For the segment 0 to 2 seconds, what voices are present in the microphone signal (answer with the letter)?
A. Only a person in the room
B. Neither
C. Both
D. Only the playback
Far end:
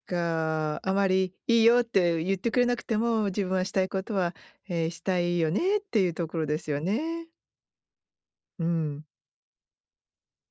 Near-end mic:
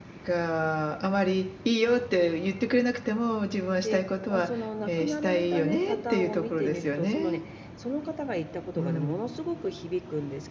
D